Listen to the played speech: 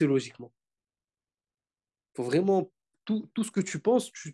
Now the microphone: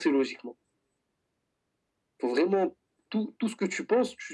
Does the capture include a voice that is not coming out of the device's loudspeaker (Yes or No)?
No